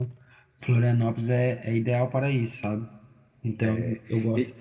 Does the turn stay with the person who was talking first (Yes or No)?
No